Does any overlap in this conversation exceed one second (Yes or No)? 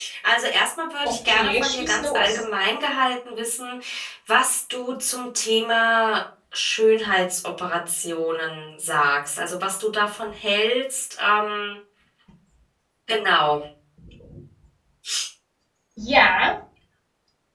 Yes